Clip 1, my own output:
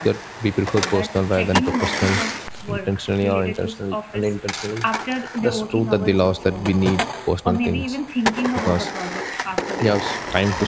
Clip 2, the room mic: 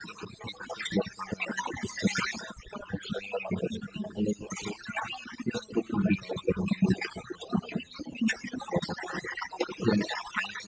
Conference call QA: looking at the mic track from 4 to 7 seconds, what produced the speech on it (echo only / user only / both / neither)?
echo only